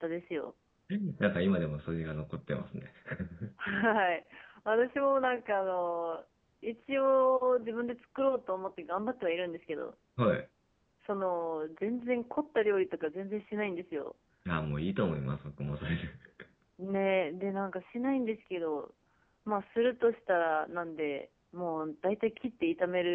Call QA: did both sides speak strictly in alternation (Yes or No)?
Yes